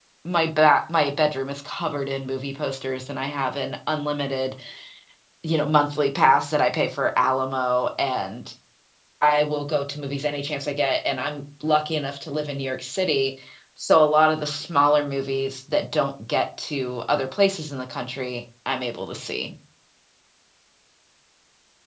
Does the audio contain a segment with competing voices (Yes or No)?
No